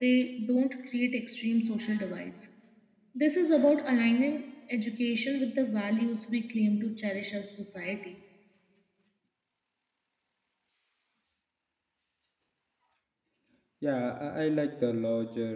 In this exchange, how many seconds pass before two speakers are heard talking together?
none

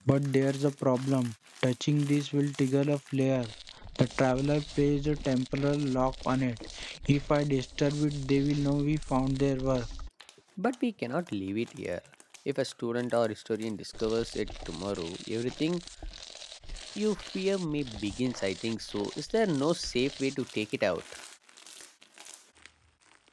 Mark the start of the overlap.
none

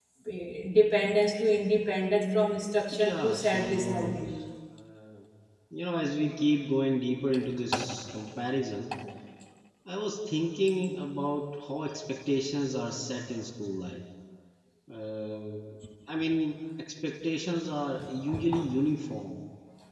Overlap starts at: 2.9 s

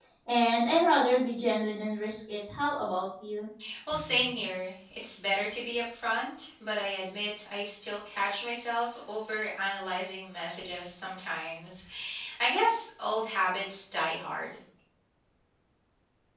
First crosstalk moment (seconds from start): none

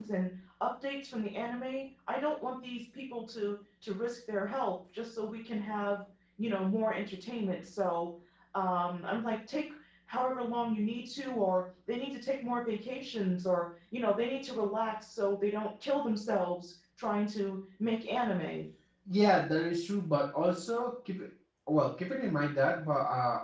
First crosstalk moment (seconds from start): none

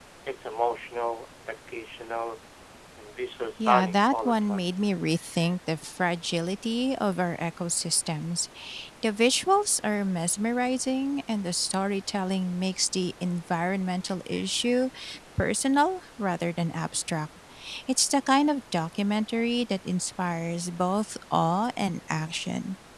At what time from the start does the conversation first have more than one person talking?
3.6 s

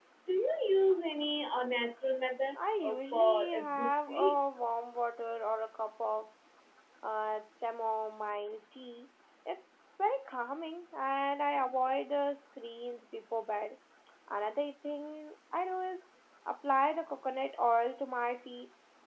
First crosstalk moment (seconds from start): 2.5 s

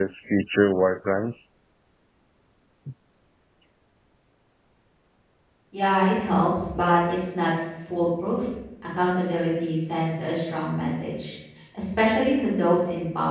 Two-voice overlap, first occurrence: none

